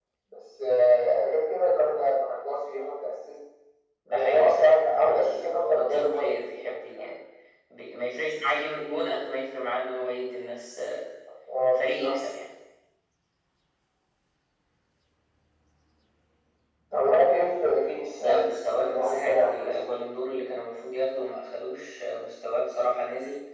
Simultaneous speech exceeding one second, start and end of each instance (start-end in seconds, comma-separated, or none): 4.1-7.1, 18.2-19.8